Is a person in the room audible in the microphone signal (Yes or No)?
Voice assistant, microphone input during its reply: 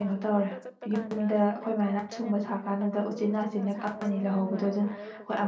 Yes